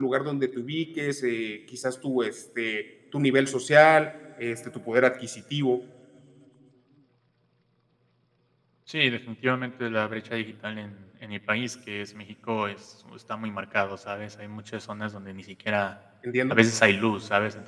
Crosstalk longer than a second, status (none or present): none